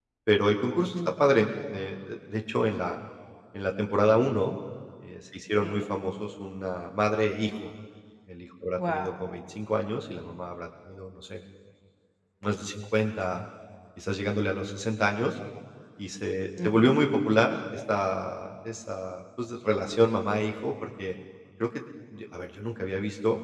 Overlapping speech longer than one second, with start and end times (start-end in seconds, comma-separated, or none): none